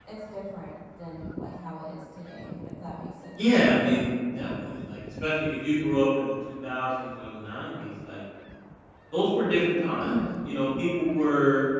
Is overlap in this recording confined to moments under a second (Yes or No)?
Yes